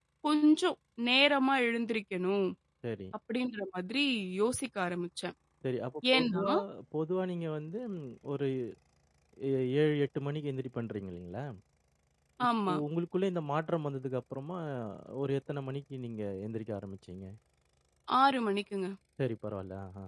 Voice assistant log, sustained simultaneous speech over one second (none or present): none